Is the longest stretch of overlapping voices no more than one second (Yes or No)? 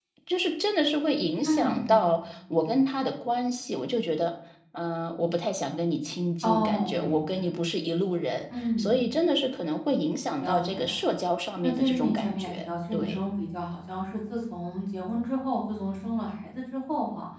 No